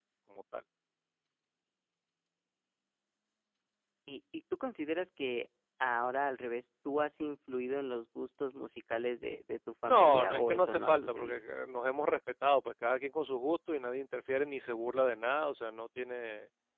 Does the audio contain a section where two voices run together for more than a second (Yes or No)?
Yes